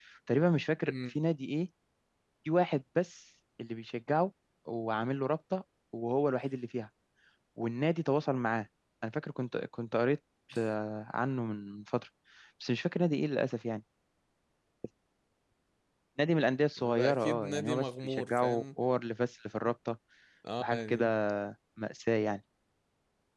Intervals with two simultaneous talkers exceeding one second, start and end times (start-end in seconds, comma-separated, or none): 17.0-18.6